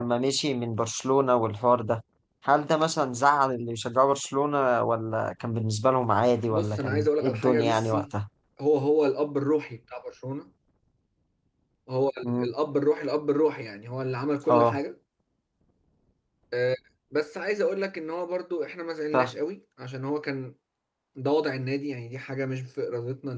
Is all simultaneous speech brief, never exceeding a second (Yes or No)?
No